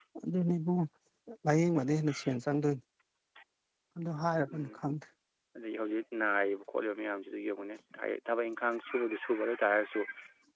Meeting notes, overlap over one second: none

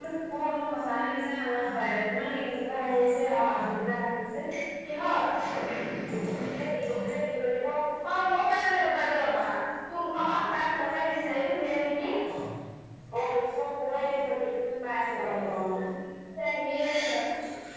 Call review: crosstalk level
none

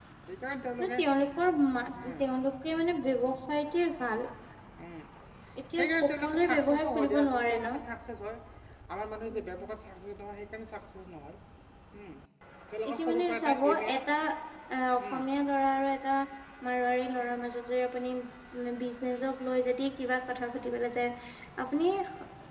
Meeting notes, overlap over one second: present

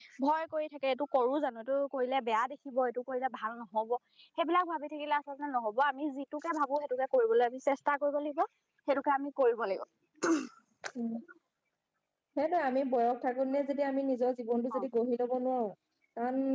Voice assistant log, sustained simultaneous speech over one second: none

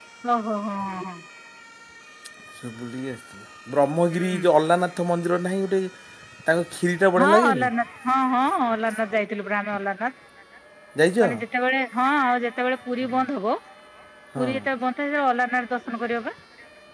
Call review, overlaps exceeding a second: none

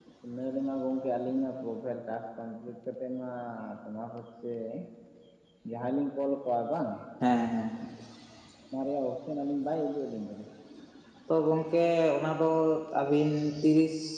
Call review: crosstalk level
none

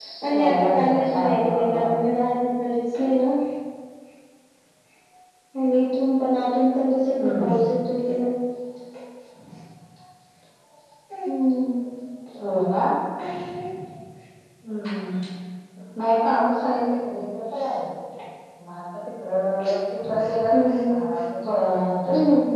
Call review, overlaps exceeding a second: present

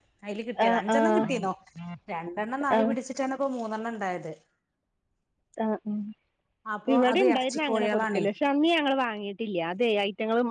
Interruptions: present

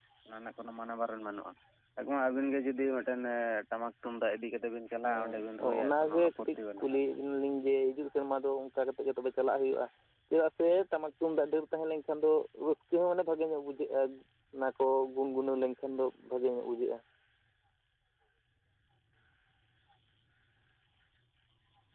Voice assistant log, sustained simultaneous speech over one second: present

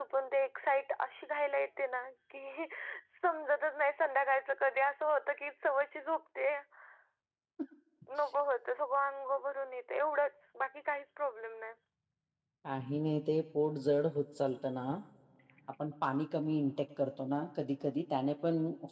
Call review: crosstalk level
none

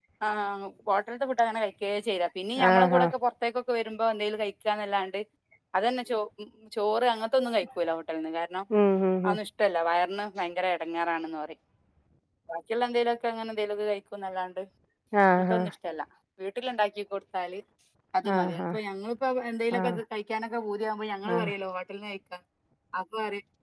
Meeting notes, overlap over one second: none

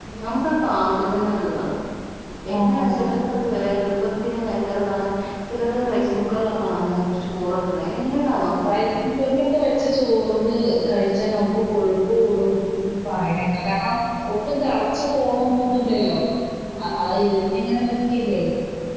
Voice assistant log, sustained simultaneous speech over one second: none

